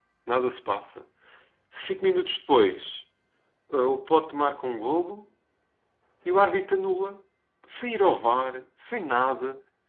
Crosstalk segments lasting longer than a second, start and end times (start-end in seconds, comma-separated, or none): none